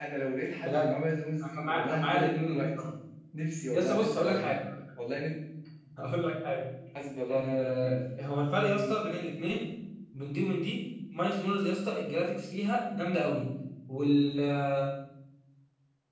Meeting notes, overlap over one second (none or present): present